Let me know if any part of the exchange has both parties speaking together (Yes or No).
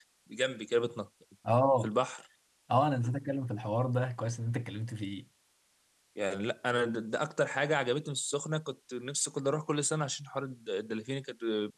No